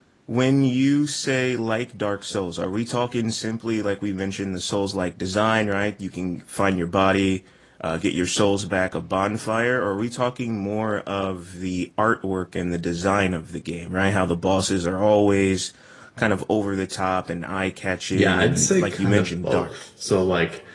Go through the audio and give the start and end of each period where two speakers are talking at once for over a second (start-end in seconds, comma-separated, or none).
18.1-19.7